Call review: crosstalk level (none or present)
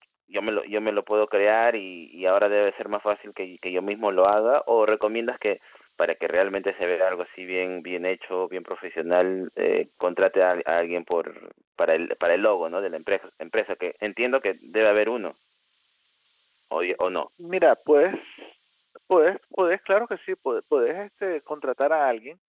none